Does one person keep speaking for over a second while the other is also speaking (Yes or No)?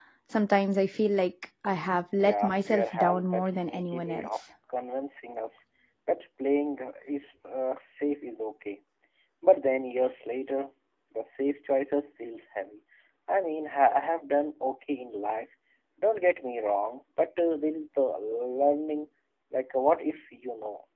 Yes